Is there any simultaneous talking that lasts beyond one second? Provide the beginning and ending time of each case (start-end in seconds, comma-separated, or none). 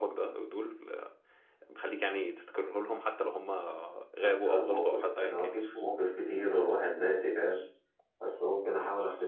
4.2-5.6